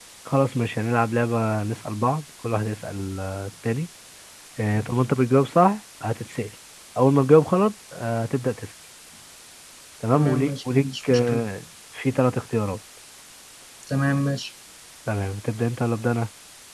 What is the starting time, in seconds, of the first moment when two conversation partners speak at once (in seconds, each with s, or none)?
10.1 s